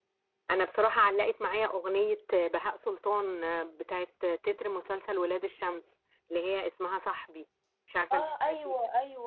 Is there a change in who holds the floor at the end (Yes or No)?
Yes